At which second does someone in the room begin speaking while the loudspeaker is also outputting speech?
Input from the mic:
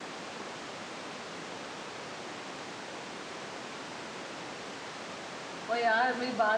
5.7 s

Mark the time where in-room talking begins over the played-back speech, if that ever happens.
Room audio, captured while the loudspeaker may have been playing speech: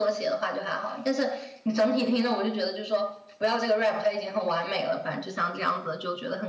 none

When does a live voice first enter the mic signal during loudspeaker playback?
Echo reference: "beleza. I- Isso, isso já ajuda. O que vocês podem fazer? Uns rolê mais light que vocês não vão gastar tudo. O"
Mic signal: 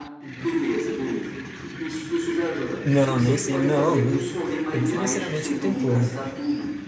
2.8 s

